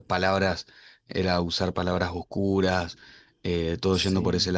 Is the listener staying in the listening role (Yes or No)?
Yes